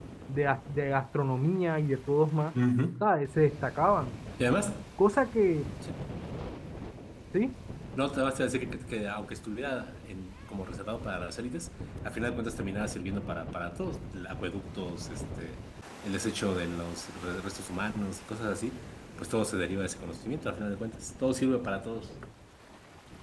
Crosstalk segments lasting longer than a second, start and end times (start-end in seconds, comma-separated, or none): none